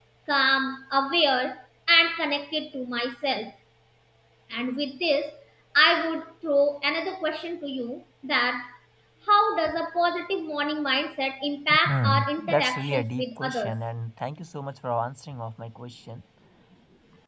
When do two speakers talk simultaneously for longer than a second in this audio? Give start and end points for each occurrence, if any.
11.9-13.7

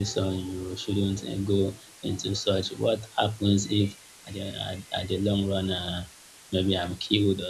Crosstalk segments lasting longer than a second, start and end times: none

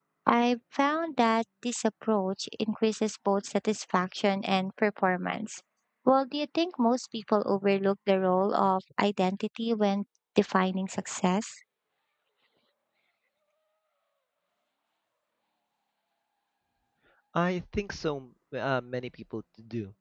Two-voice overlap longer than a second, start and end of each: none

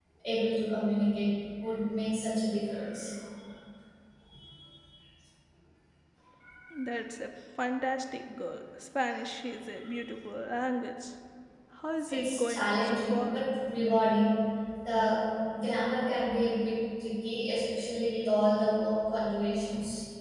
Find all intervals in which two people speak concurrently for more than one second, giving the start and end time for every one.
12.1-13.3

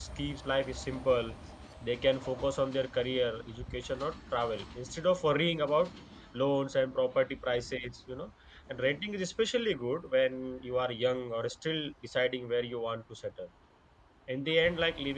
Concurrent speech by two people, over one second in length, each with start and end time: none

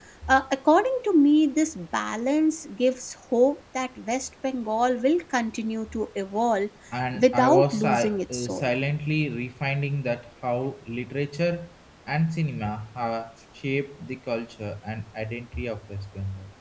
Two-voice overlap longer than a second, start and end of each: 7.1-8.6

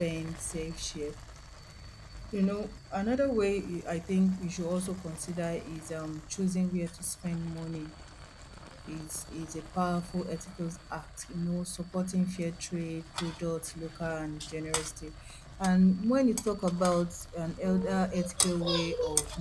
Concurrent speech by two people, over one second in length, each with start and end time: none

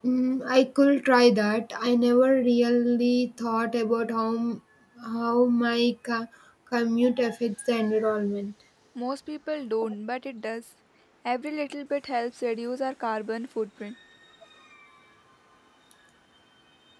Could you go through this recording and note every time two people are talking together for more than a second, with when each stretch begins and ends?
none

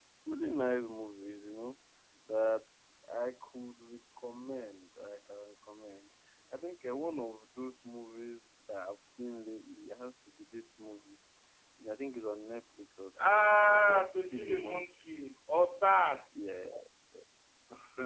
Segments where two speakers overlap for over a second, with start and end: 13.3-14.8

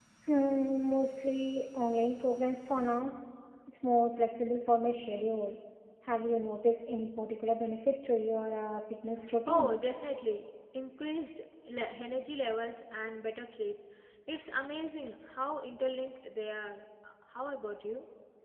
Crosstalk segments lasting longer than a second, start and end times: none

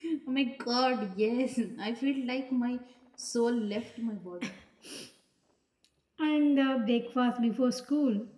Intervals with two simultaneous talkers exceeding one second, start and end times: none

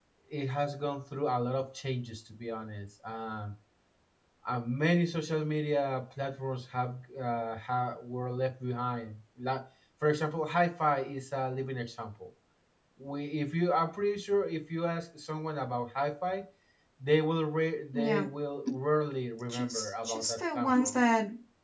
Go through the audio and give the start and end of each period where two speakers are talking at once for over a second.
19.5-20.9

